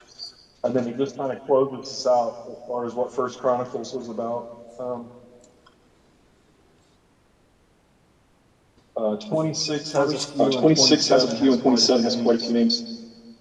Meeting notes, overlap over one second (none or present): present